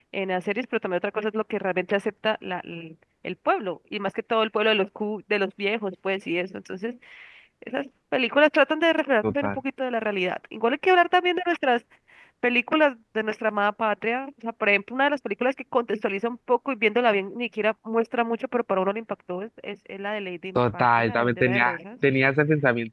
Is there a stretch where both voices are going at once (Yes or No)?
Yes